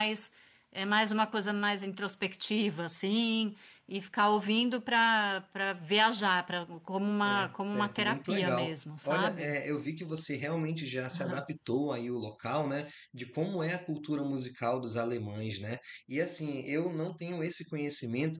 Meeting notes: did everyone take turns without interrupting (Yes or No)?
No